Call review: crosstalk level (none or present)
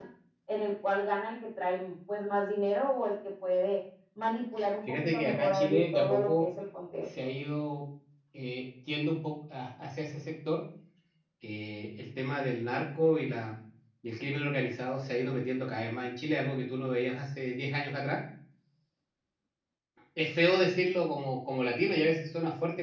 present